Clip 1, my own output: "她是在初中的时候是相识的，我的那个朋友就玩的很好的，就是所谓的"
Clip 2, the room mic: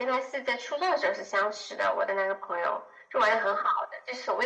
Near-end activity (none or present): none